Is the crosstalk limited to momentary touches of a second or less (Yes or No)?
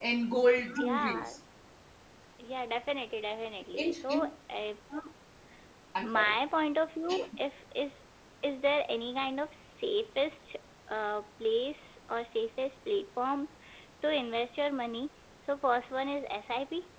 Yes